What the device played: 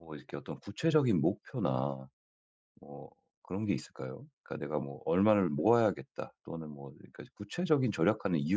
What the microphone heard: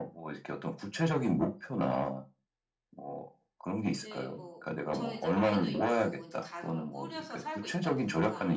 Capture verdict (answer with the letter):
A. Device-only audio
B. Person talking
B